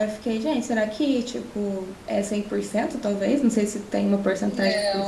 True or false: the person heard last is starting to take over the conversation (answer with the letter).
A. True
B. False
A